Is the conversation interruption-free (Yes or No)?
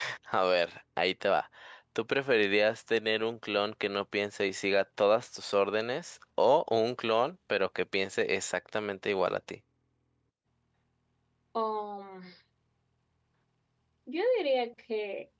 Yes